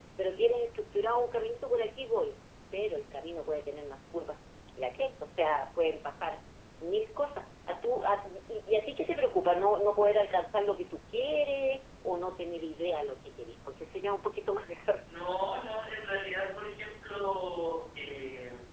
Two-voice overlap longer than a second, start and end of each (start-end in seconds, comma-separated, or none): none